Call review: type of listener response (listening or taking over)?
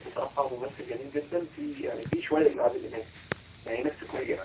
listening